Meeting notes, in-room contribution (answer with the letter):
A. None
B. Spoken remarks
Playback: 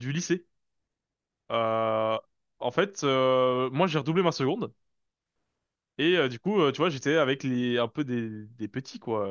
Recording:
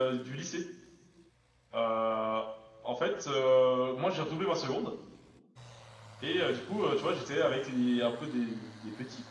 A